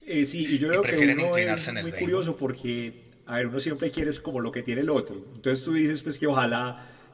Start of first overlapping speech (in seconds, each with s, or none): 0.7 s